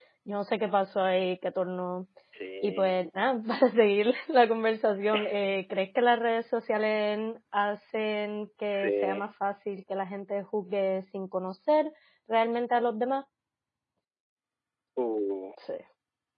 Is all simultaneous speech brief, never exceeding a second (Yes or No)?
Yes